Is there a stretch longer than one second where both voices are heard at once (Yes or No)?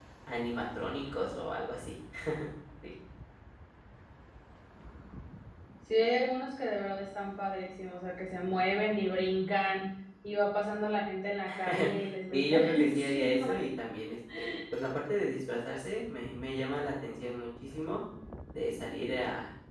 Yes